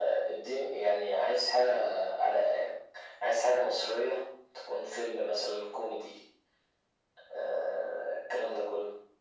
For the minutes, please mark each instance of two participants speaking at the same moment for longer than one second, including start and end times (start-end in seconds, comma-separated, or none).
none